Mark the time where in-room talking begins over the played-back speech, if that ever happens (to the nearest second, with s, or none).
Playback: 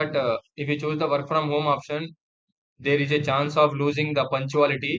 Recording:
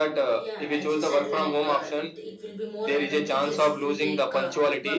0 s